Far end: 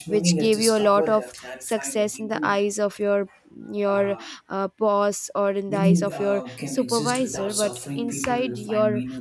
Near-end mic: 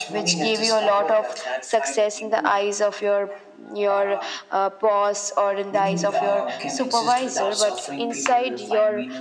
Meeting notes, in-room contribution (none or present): none